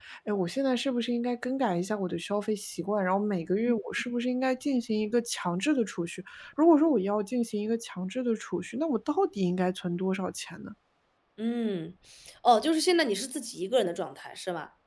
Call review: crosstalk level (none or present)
none